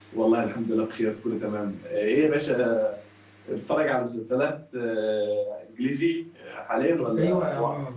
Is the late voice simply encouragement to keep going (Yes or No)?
No